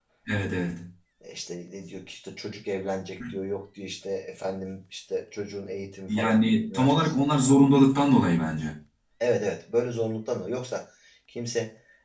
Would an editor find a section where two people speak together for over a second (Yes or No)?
Yes